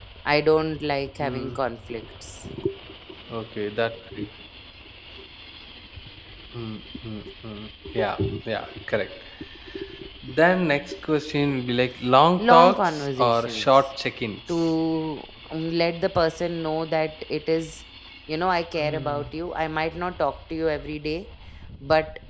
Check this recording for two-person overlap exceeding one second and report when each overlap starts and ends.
12.4-13.7

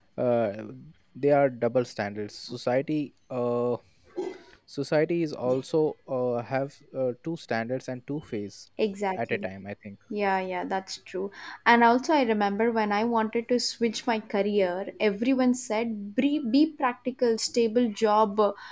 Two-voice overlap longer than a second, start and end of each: none

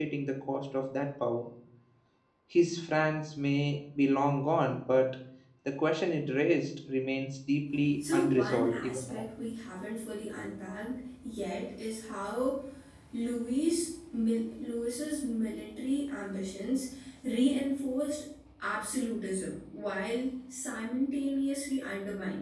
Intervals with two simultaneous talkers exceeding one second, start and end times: 8.0-9.2

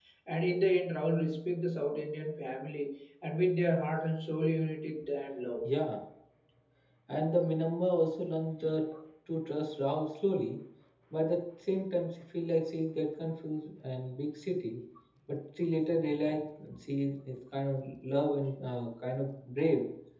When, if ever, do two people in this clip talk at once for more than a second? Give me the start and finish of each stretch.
none

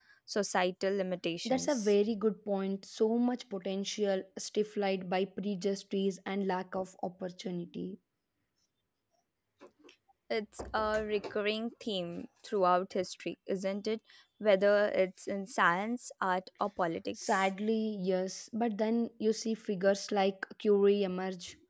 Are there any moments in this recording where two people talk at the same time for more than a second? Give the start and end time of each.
none

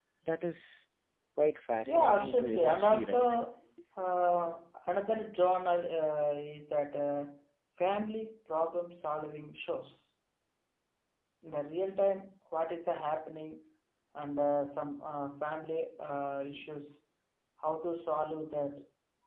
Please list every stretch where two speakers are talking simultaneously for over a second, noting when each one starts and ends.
1.9-3.3

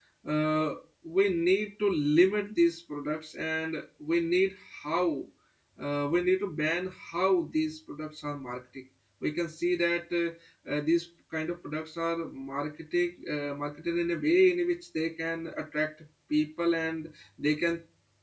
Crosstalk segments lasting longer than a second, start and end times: none

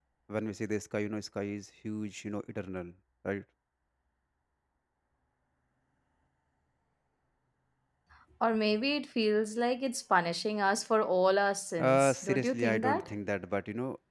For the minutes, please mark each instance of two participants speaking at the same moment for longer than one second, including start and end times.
11.8-13.1

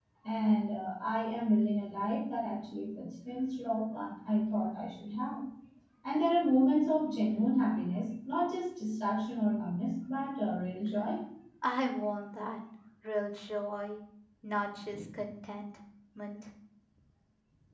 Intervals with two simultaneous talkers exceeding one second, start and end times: none

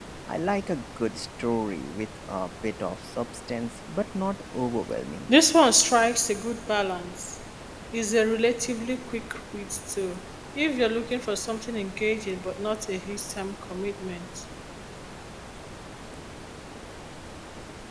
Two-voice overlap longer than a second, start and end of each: none

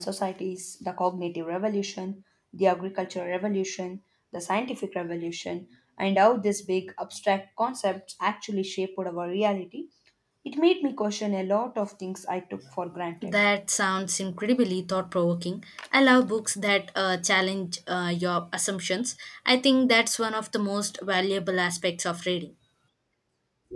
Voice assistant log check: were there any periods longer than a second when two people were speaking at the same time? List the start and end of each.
none

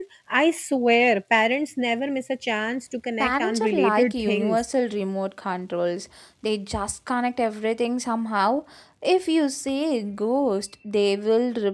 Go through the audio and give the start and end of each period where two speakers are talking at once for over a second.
3.2-4.6

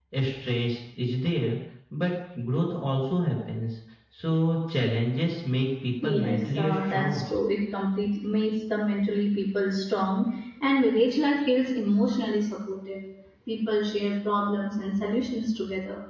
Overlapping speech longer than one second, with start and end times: 6.0-7.2

